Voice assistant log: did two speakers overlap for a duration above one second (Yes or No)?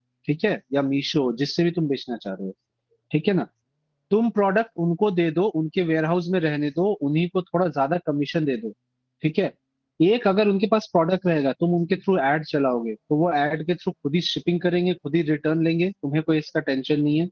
No